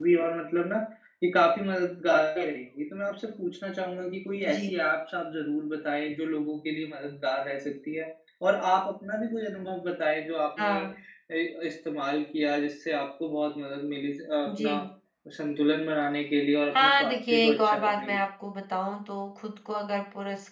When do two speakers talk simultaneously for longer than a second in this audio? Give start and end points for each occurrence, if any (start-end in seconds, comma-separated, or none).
16.8-18.1